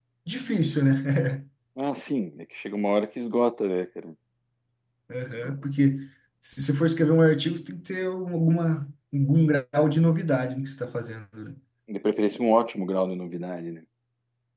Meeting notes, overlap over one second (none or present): none